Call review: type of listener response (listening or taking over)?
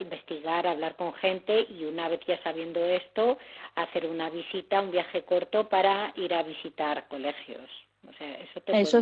taking over